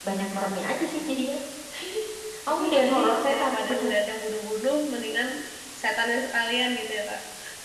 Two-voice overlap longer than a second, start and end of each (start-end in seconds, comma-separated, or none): 2.6-3.9